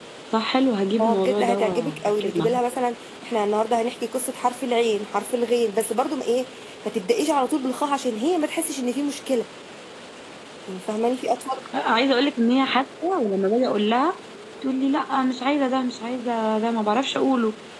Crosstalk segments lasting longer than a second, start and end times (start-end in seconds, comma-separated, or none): 1.0-2.5